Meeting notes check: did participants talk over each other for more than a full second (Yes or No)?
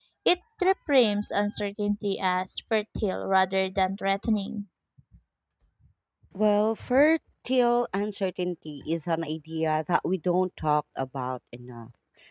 No